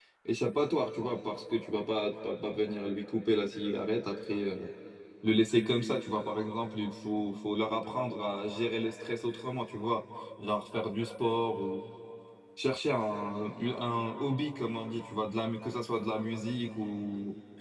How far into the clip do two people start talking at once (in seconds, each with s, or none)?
none